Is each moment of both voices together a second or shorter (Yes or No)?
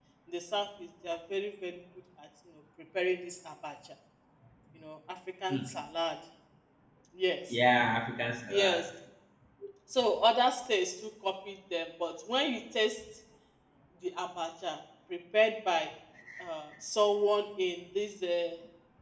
Yes